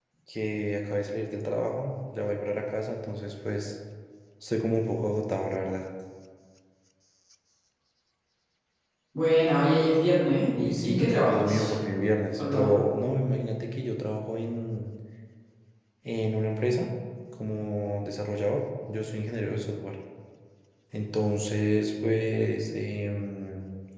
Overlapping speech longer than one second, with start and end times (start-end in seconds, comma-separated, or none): 10.6-11.8